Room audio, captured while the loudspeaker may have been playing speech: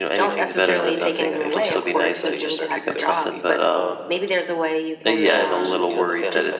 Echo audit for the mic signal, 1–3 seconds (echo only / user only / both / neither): both